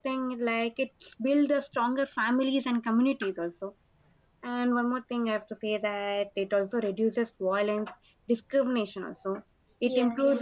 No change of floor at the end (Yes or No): Yes